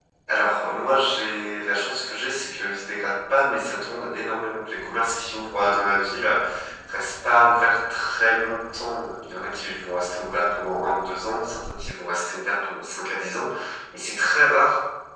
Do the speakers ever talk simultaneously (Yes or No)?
No